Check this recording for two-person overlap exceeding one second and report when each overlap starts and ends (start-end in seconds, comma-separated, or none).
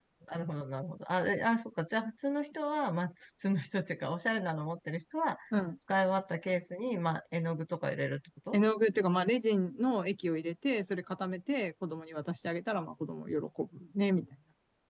none